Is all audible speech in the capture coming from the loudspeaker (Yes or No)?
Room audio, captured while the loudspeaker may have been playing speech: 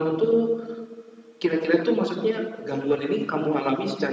Yes